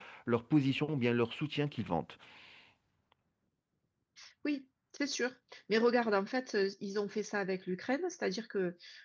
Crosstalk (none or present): none